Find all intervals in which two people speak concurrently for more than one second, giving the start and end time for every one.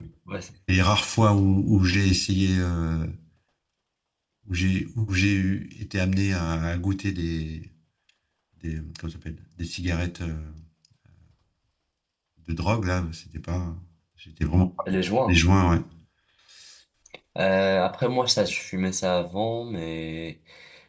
none

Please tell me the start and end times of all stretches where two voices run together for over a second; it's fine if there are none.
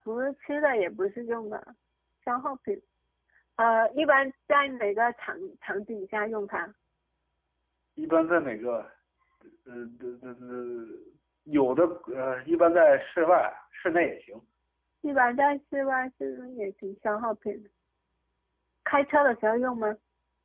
none

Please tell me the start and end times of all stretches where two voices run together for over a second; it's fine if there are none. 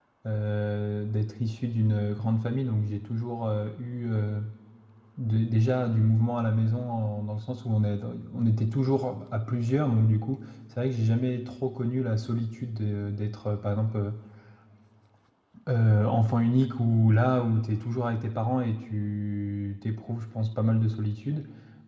none

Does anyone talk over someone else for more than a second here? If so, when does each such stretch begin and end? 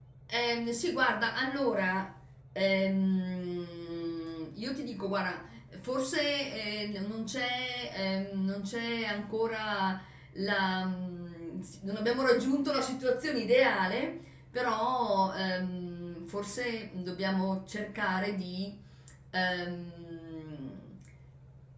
none

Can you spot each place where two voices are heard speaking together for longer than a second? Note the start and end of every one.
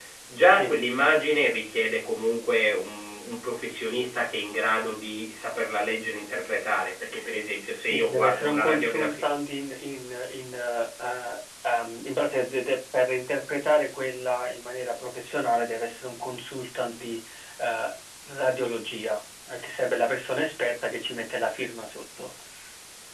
7.9-9.2

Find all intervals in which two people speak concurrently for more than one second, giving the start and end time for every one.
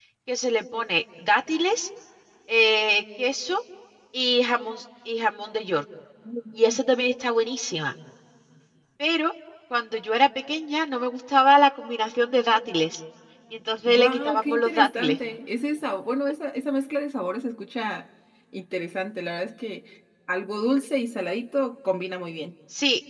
13.8-15.2

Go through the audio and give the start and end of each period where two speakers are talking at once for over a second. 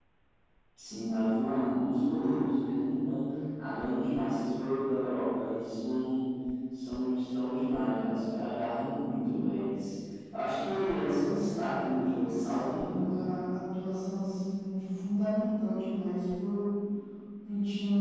11.2-13.2

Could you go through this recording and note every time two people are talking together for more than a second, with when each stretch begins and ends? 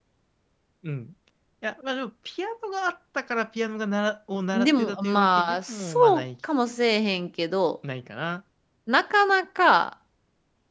4.5-6.2

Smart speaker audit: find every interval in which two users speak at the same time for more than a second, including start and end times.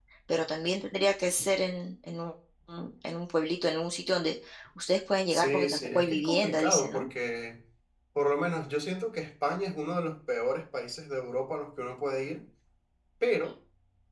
5.3-7.1

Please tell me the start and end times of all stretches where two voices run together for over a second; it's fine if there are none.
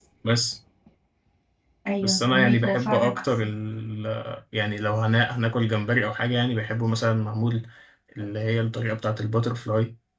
2.0-3.2

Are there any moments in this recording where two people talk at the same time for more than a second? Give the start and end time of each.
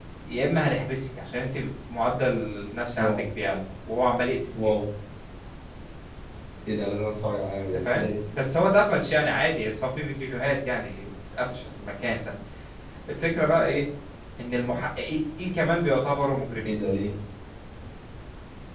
none

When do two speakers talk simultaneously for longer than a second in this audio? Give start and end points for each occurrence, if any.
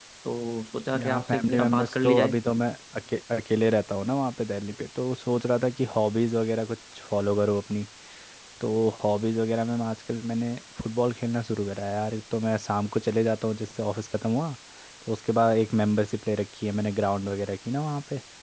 0.9-2.4

